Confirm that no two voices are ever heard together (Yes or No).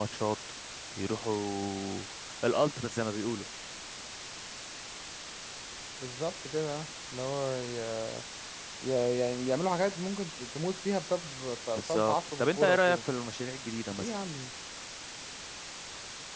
No